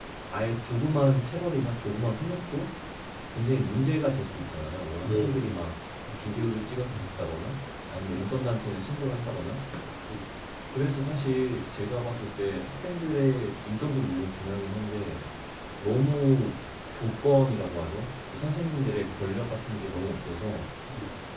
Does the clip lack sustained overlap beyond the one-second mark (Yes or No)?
Yes